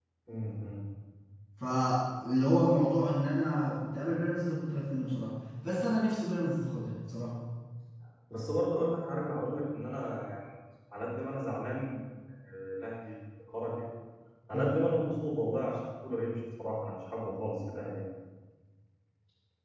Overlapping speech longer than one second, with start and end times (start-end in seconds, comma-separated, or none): none